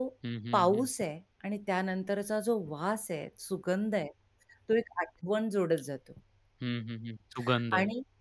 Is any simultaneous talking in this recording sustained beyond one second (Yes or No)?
No